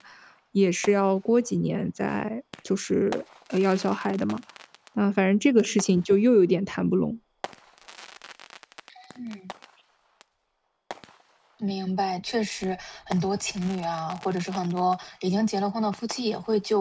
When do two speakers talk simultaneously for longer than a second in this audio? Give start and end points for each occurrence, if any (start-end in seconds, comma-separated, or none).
none